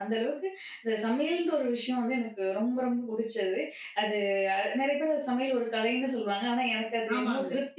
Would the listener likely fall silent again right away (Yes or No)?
No